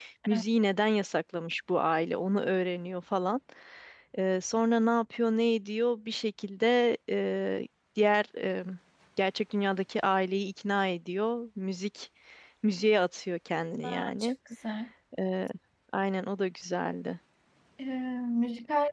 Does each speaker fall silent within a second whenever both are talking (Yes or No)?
Yes